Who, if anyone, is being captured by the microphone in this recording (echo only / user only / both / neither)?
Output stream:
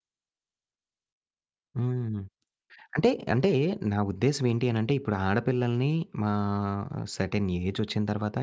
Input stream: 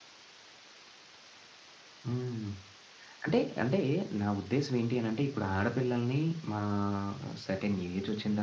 echo only